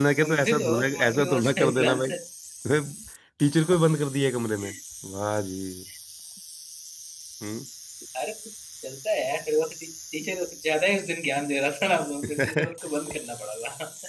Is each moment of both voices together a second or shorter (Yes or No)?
No